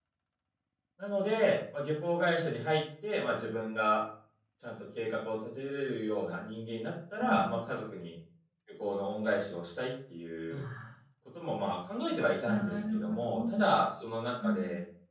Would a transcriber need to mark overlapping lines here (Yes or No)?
Yes